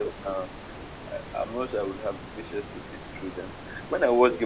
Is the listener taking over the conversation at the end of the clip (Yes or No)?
No